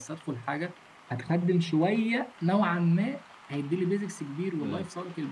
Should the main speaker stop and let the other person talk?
No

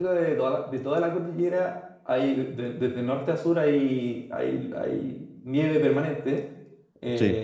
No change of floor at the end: Yes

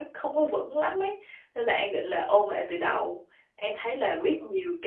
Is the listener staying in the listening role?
Yes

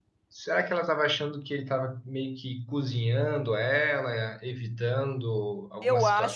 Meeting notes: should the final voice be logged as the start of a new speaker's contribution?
Yes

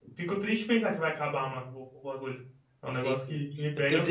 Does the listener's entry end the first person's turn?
Yes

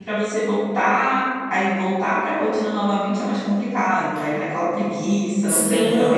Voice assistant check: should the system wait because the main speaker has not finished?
No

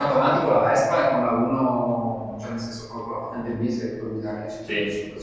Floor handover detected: No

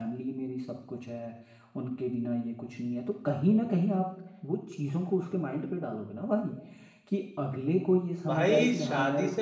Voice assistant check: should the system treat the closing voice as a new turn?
Yes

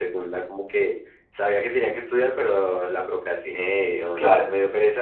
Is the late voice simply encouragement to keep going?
Yes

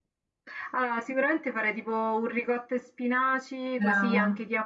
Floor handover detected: No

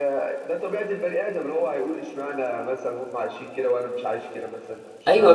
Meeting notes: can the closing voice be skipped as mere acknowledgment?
No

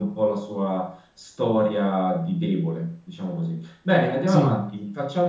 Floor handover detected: No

